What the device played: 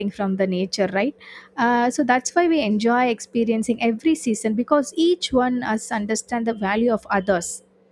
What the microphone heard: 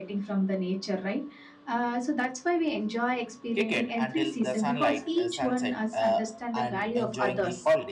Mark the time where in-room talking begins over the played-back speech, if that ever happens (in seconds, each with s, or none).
3.6 s